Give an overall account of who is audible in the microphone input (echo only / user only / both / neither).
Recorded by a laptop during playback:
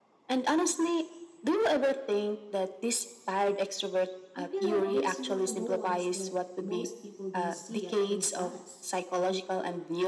both